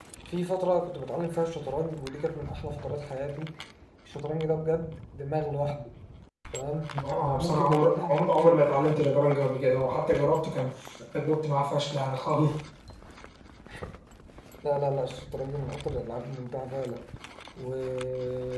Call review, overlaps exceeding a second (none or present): present